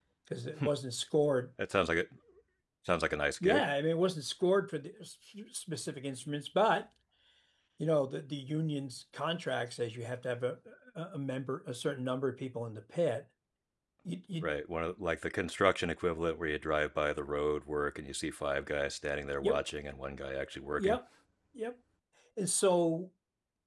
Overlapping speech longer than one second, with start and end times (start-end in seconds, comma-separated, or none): none